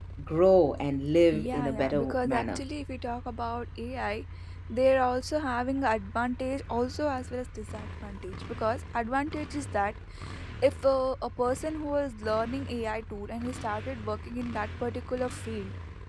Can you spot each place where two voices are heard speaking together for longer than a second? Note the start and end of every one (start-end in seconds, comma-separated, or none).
1.3-2.6